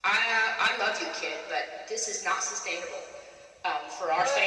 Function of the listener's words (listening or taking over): taking over